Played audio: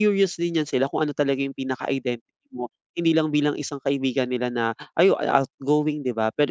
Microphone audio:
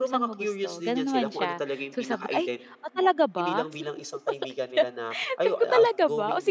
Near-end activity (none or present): present